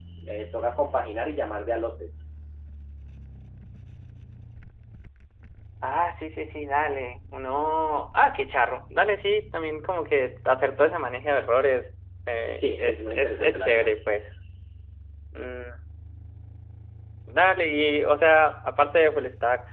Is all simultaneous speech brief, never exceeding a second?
No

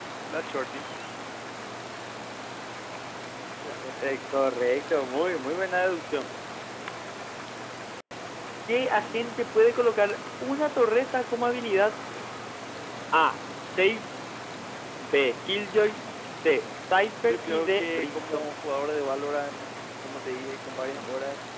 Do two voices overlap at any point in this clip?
Yes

